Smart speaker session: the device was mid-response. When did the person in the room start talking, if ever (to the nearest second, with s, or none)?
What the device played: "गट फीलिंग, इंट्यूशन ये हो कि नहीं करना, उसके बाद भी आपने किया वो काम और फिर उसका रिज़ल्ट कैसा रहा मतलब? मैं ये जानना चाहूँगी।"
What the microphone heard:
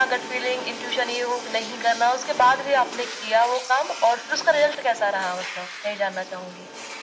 none